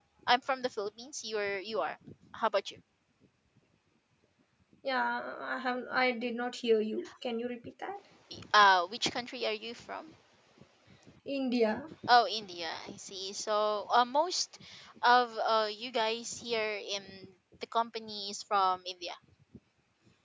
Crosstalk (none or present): none